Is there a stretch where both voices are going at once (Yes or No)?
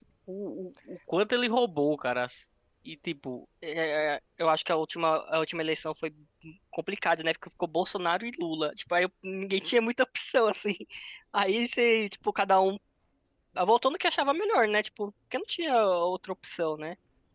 No